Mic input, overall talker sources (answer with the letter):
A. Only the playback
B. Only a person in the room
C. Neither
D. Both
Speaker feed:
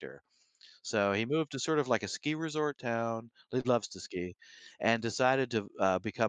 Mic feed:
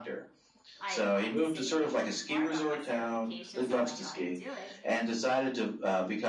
D